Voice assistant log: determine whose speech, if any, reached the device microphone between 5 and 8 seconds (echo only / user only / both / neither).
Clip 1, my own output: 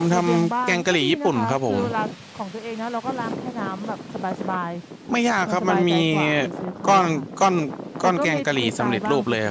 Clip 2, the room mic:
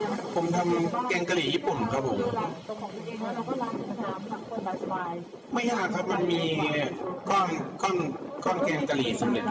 both